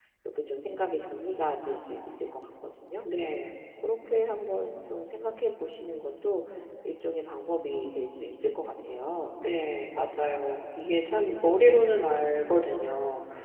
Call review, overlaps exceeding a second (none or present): none